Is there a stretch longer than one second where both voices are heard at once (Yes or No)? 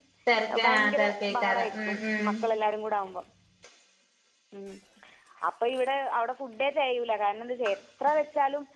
Yes